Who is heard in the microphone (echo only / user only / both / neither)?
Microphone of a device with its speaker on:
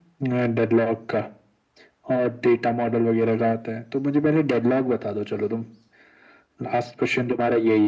echo only